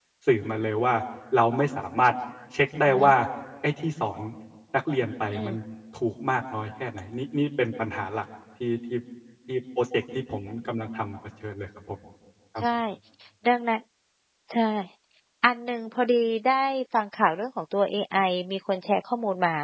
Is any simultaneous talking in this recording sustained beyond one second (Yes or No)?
No